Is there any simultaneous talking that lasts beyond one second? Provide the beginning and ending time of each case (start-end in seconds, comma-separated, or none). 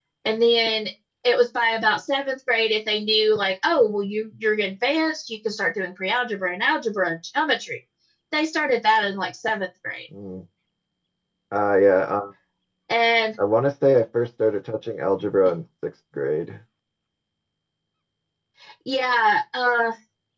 none